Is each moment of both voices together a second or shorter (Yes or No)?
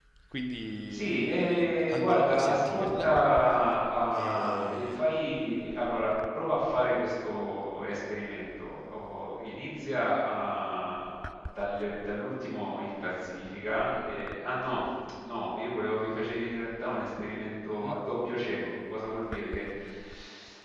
No